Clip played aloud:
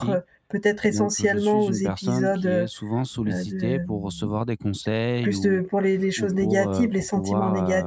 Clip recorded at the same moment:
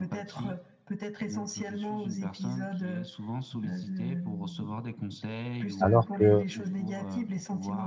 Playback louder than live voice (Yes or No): No